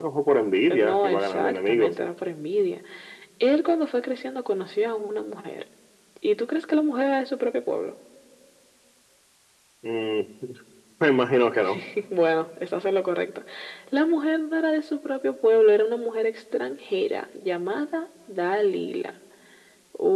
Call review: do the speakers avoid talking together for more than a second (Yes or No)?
No